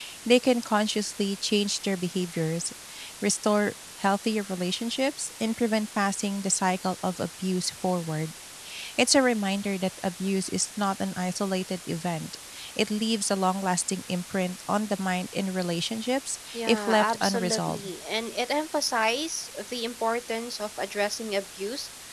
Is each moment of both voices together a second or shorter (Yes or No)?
No